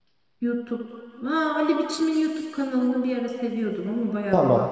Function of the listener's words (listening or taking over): taking over